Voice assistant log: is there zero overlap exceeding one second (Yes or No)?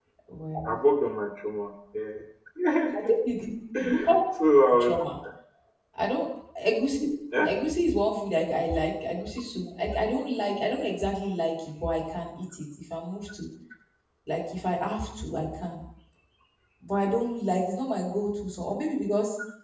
Yes